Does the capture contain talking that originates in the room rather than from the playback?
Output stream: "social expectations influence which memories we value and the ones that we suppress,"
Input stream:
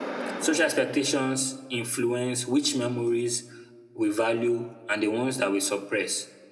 No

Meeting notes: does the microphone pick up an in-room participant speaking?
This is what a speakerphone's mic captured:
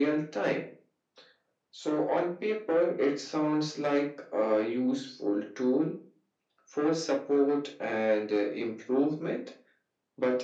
No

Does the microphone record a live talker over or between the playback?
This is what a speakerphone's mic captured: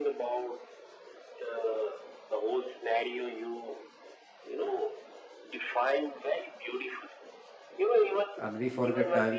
Yes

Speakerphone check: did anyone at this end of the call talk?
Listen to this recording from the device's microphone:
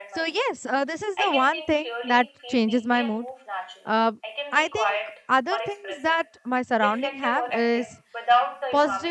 Yes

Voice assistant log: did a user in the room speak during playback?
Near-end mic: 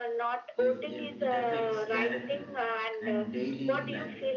Yes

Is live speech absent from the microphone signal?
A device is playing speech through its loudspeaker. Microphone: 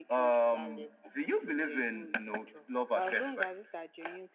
No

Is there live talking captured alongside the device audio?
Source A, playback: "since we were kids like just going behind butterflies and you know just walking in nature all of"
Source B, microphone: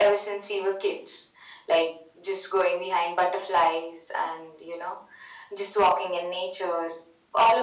No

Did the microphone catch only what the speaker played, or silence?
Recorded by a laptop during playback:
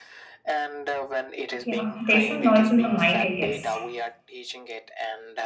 No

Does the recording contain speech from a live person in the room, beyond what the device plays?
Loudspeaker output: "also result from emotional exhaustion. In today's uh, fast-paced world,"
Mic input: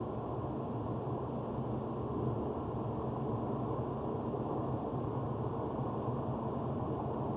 No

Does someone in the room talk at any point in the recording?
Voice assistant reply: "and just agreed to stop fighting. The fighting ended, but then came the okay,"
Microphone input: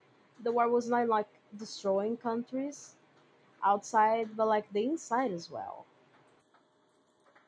Yes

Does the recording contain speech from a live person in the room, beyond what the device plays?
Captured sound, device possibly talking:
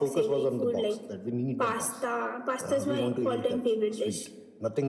No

